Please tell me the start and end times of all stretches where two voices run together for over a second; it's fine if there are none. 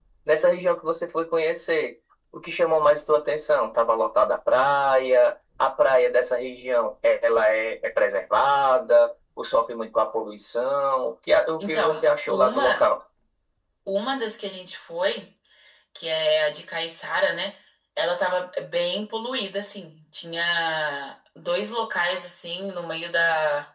11.6-12.9

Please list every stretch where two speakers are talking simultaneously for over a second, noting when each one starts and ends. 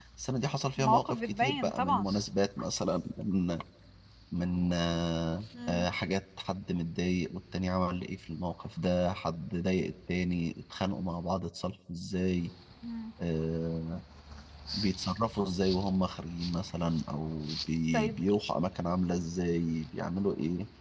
0.8-2.1

